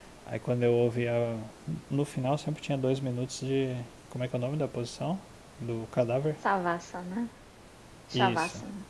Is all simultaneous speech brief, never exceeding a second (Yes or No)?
Yes